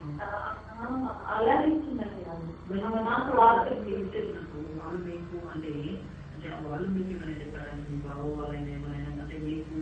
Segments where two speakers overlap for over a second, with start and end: 2.9-4.3

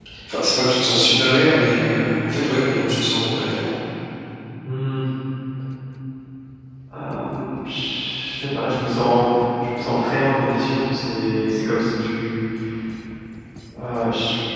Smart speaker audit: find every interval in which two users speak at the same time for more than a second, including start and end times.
none

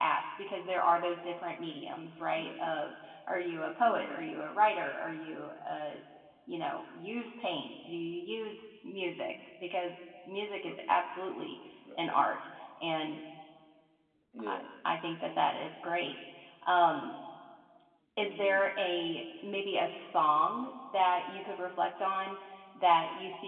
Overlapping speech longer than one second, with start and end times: none

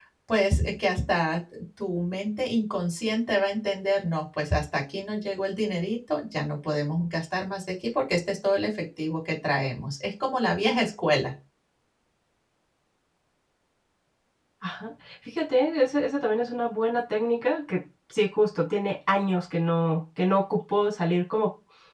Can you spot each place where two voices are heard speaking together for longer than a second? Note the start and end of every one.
none

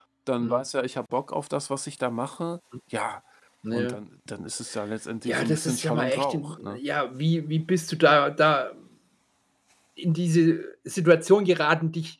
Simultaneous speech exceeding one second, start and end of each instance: 5.3-6.8

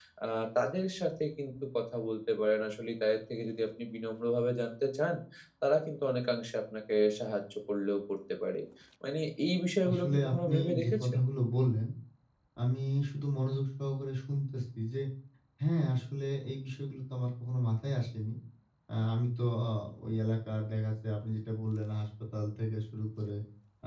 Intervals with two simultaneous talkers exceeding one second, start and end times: 9.9-11.2

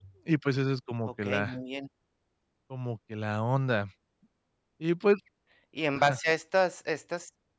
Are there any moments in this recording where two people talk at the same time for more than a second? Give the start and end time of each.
none

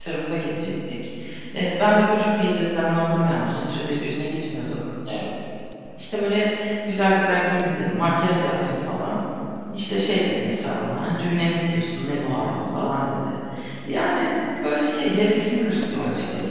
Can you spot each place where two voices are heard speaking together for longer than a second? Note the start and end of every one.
none

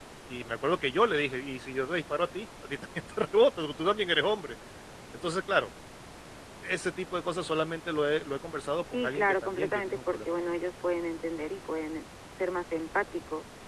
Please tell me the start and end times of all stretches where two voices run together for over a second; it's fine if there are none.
8.8-10.3

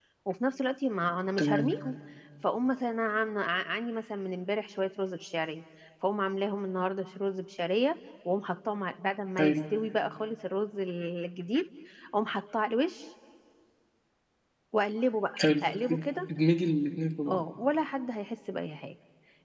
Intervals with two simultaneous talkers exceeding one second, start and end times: none

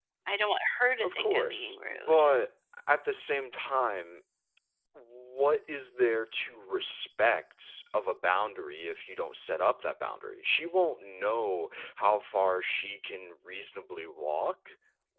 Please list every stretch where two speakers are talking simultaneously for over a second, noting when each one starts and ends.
1.0-2.2

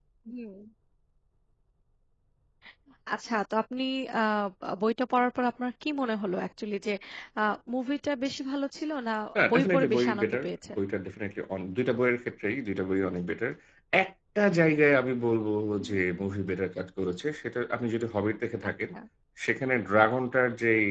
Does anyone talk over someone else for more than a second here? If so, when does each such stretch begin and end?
9.5-10.8

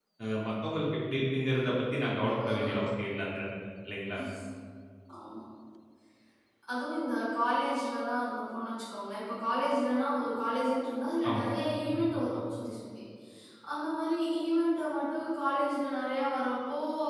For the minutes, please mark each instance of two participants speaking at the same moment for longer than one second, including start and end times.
none

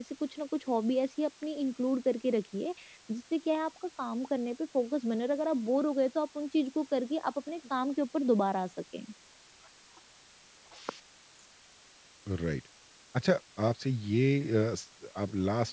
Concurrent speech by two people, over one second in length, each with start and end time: none

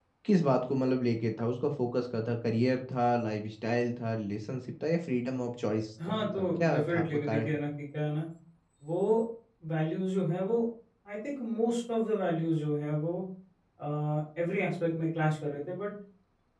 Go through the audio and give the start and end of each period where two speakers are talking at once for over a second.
6.0-7.6

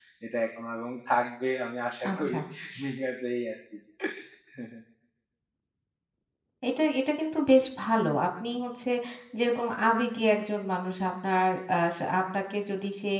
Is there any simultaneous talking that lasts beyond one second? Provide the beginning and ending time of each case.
none

